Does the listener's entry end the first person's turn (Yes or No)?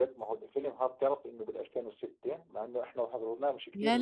Yes